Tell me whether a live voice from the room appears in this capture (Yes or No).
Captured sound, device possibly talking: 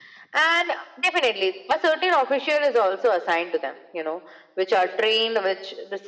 No